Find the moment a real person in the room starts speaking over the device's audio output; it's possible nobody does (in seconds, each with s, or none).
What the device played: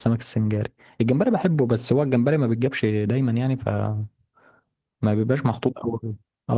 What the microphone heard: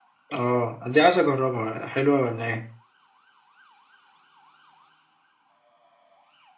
0.3 s